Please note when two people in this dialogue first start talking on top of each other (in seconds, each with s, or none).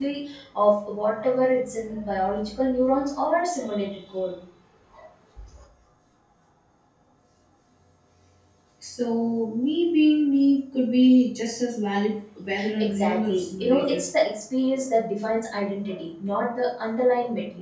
12.5 s